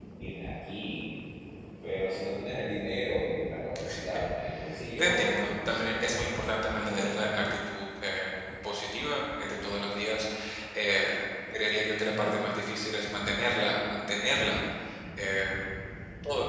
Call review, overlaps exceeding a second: present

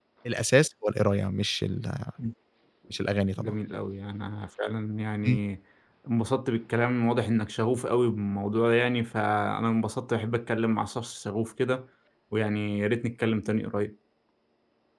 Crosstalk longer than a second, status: none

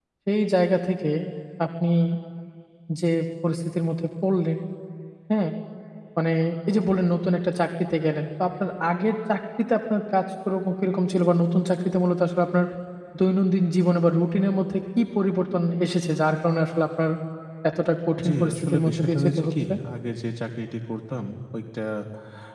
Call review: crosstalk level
present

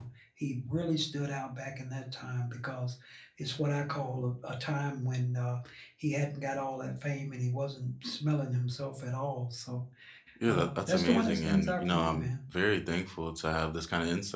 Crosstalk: present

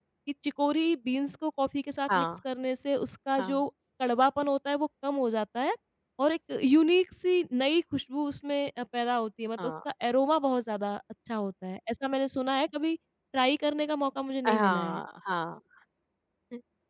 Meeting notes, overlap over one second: none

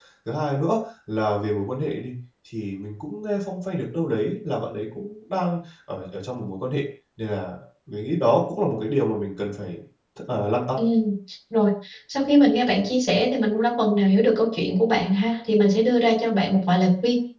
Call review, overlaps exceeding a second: none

